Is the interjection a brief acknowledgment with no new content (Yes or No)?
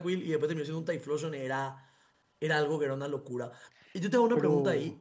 Yes